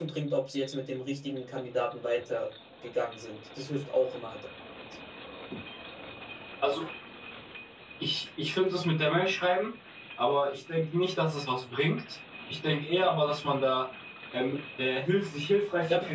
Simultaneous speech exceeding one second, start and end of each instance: none

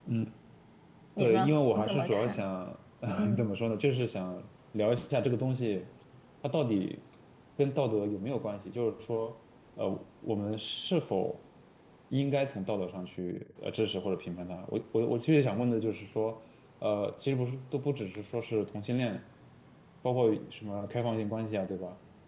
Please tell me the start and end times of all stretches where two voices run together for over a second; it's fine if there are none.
1.2-2.4

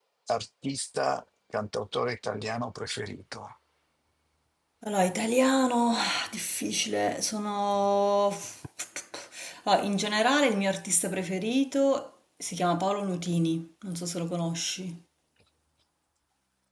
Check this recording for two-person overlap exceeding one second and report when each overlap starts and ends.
none

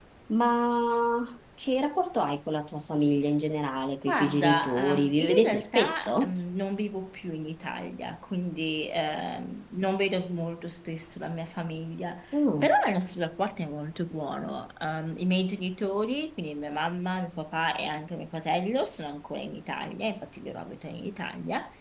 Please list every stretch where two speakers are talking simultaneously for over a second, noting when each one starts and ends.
4.1-6.3

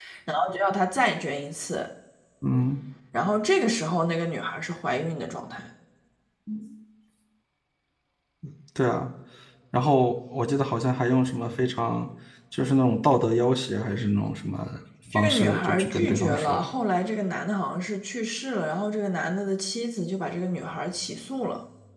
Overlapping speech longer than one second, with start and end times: 15.1-16.6

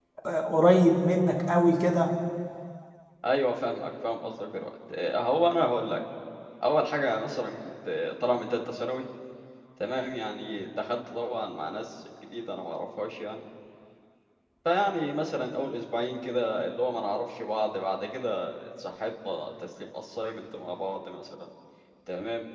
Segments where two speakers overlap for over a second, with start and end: none

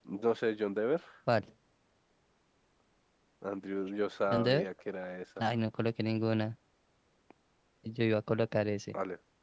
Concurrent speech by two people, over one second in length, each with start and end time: none

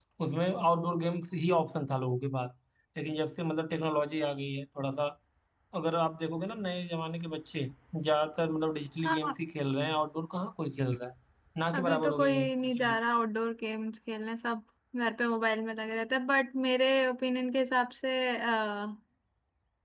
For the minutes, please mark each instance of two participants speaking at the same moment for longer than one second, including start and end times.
11.7-13.0

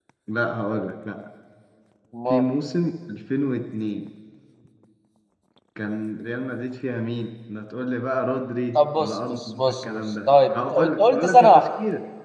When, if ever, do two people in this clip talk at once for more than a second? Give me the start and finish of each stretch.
8.8-11.7

